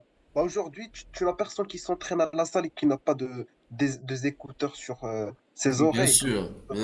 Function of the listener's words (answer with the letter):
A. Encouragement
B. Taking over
B